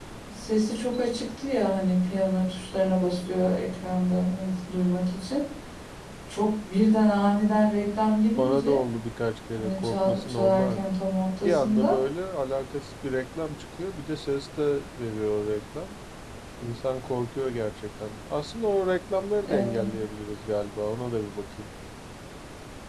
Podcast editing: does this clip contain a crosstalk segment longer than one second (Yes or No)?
Yes